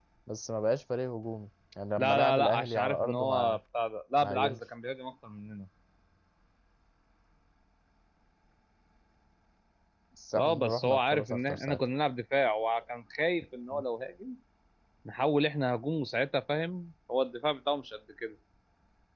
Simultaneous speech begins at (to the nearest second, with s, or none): 2 s